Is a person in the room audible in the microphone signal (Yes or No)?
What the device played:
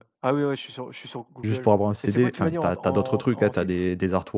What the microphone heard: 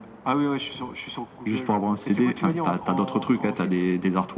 No